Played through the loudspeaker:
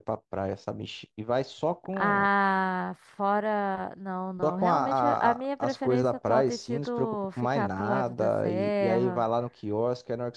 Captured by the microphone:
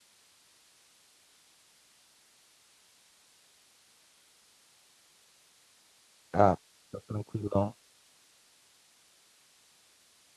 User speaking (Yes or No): Yes